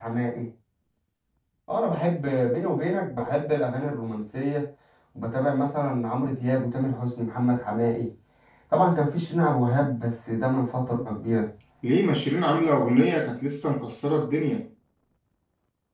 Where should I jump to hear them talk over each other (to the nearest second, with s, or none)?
none